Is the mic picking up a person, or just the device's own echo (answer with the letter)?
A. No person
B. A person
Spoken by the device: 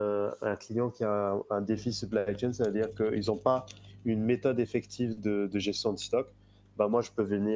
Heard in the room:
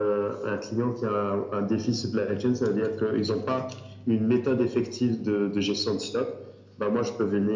A